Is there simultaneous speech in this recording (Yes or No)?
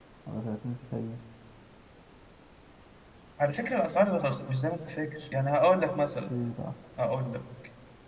No